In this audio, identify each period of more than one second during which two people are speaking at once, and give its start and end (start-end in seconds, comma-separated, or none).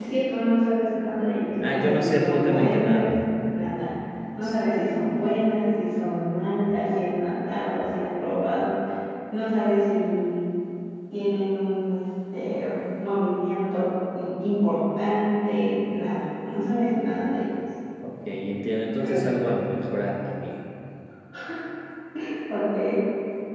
1.6-3.1